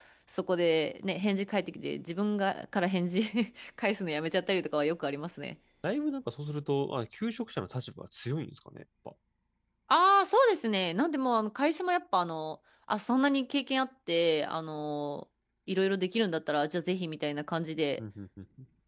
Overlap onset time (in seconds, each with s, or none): none